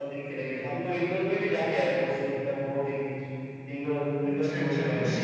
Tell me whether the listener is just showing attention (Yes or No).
No